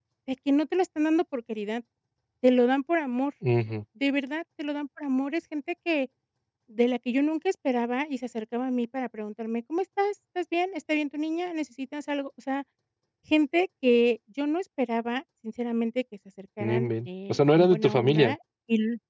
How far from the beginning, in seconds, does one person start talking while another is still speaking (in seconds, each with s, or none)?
16.6 s